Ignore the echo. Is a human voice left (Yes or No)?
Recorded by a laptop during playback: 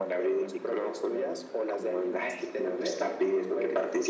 No